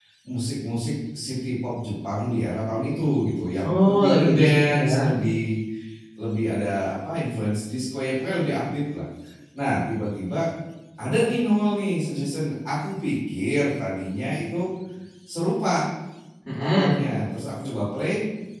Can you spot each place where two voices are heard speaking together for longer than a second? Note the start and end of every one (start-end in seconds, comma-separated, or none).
3.6-4.9